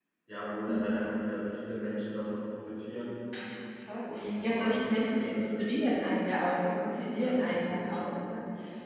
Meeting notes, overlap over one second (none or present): present